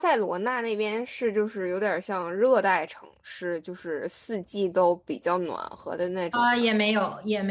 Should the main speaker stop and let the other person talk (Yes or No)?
Yes